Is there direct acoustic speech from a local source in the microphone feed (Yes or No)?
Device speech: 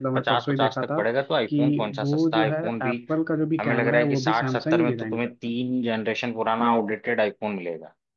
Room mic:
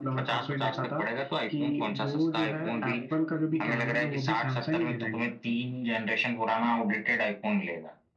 Yes